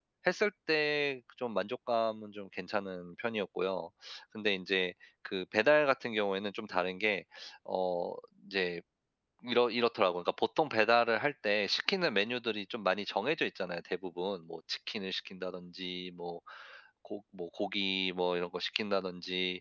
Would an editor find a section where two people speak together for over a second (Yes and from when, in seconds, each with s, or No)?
No